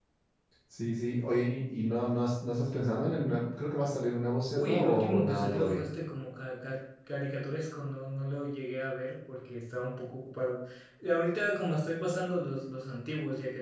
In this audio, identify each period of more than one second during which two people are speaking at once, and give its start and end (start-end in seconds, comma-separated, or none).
4.6-5.8